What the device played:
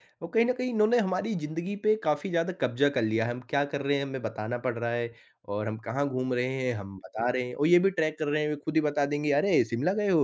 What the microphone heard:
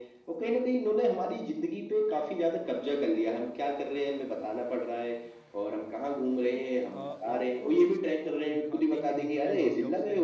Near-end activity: present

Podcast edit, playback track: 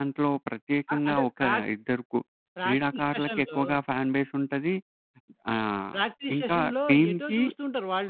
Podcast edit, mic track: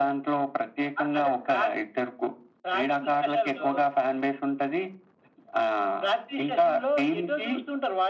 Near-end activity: none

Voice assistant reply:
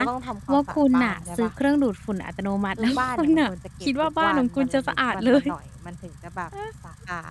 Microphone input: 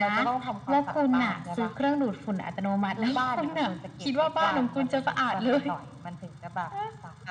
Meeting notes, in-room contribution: none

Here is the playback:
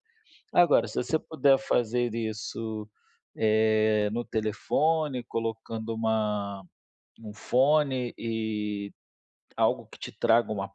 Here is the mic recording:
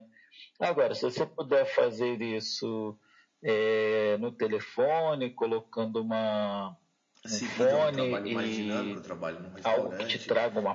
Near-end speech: present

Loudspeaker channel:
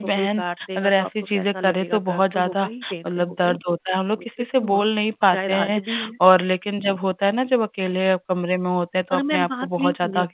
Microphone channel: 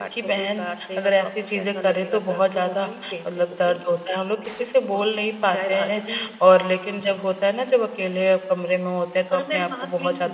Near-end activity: none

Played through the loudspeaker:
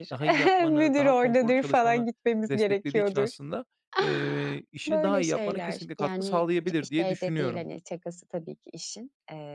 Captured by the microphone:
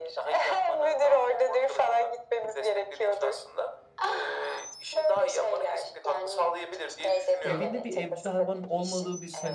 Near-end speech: present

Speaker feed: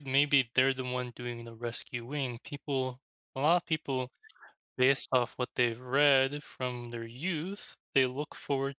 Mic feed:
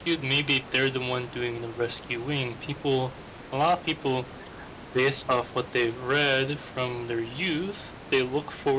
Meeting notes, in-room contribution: none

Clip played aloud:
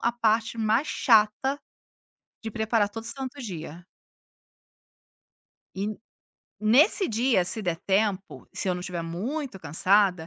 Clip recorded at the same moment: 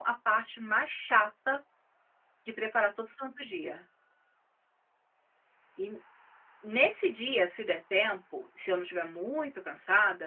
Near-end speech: none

